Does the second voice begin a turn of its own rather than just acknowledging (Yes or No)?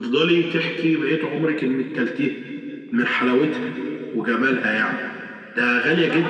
Yes